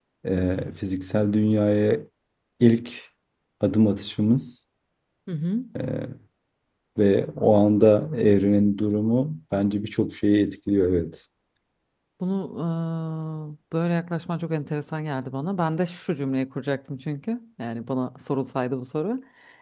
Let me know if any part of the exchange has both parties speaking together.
No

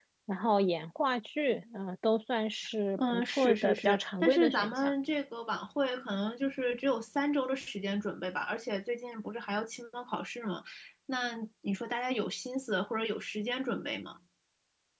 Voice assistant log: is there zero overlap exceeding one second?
No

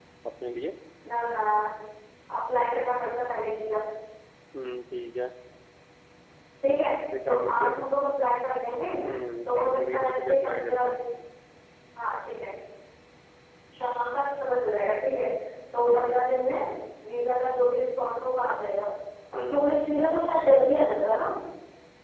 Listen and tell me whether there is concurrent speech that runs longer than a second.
Yes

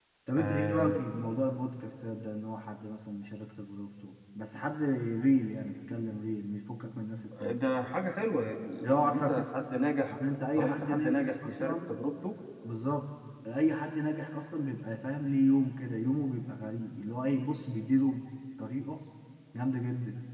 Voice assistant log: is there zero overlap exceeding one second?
No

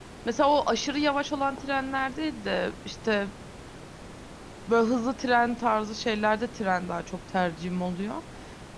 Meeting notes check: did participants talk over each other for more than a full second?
No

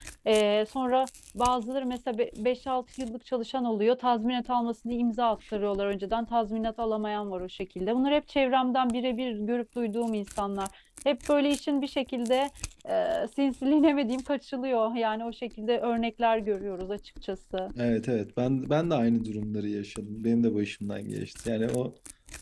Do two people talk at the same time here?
No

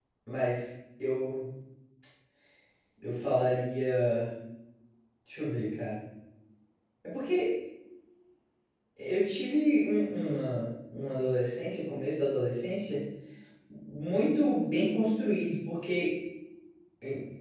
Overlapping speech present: No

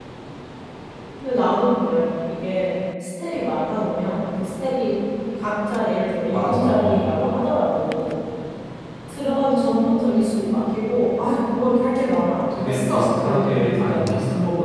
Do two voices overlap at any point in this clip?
Yes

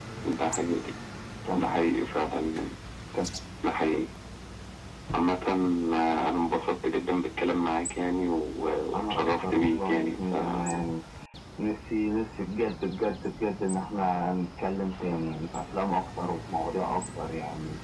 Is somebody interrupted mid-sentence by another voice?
Yes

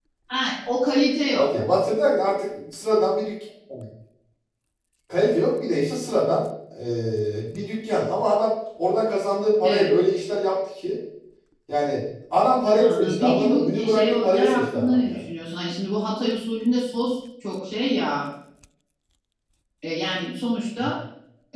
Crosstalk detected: Yes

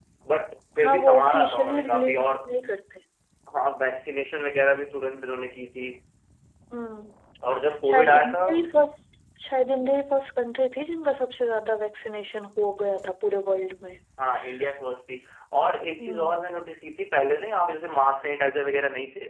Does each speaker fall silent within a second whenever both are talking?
No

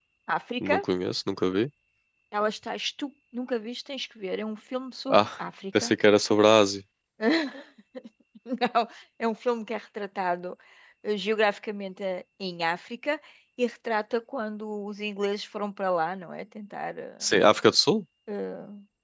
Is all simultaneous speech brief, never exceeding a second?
Yes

